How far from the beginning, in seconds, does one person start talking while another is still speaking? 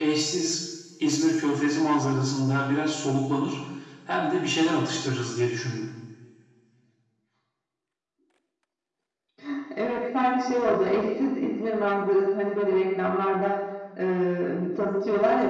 none

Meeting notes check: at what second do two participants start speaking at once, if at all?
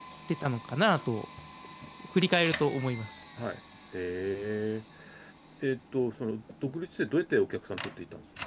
none

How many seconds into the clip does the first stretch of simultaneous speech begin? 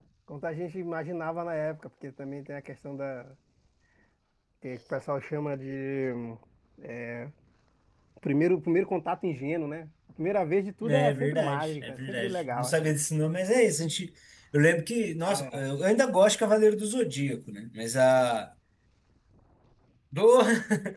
10.8 s

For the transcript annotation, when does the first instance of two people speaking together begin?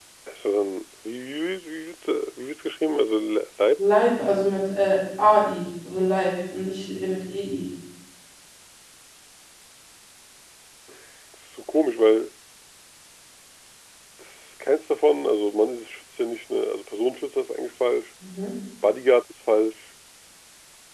none

